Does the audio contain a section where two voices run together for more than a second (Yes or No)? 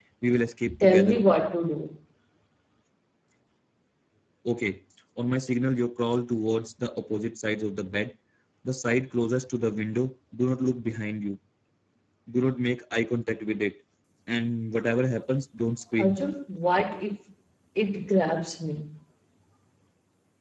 No